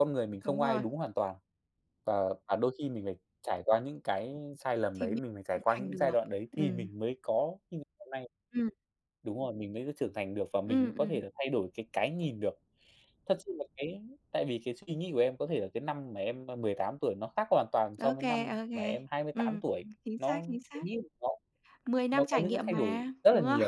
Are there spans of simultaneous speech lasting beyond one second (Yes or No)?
Yes